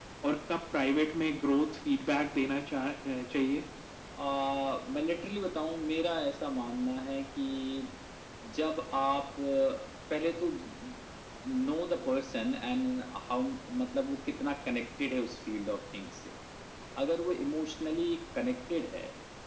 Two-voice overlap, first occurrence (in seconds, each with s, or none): none